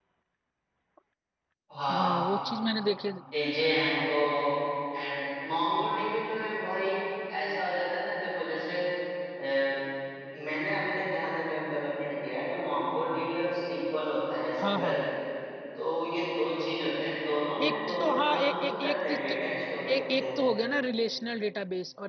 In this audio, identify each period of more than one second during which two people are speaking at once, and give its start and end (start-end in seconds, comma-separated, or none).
17.6-19.3